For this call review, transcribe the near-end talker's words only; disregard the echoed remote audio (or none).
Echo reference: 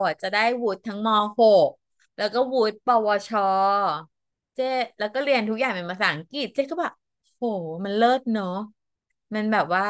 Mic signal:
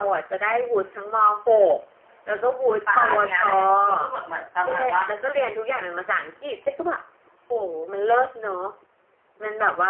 ป่าเนี่ยแหละก็ก็แบบเหมือนประมาณว่า